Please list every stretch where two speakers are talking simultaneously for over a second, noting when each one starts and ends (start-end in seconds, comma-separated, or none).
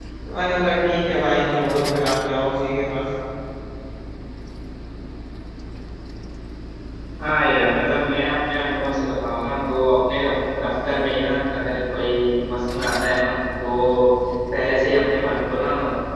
none